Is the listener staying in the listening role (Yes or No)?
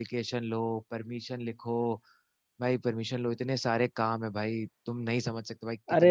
No